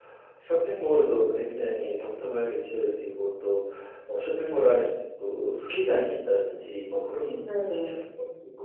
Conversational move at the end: listening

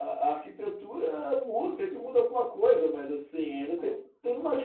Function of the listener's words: listening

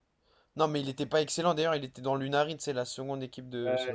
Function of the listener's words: taking over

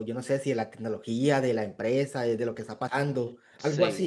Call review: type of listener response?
taking over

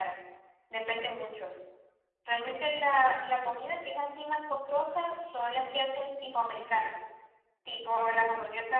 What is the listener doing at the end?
listening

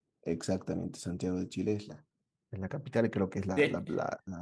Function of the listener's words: listening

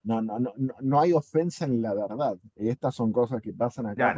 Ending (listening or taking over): taking over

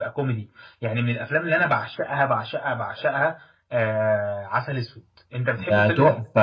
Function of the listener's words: taking over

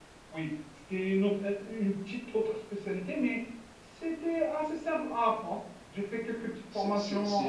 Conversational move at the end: taking over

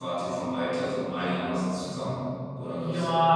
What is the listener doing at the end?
taking over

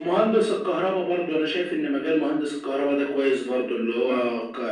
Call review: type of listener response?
listening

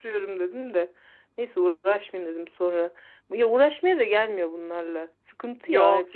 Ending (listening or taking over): taking over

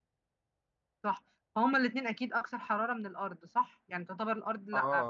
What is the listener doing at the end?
taking over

